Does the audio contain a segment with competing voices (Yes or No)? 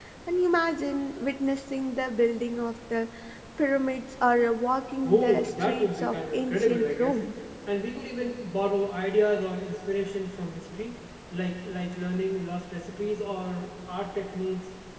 Yes